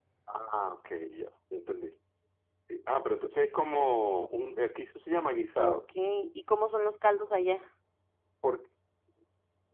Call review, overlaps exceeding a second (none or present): none